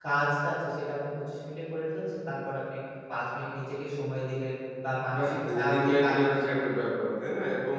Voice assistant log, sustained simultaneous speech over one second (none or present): present